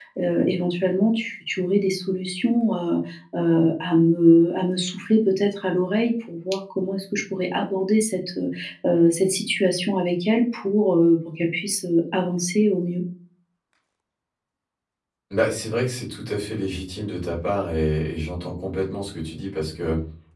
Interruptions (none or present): none